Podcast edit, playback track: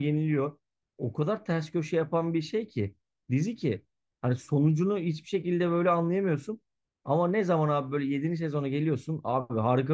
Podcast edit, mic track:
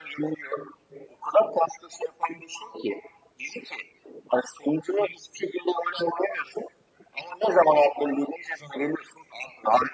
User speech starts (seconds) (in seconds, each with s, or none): none